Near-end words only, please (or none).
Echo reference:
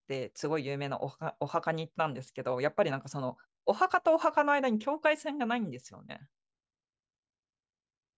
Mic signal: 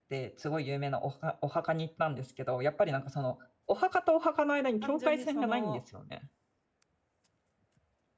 単純にその、